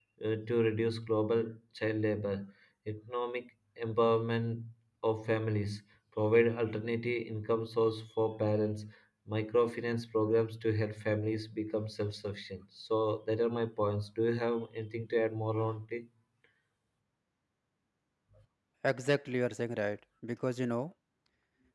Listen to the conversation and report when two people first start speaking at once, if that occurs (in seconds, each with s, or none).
none